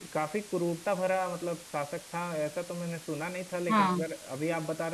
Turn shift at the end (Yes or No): No